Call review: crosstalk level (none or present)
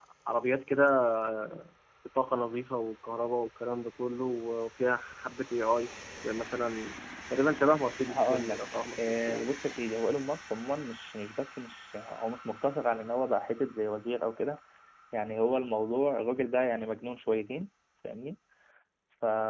present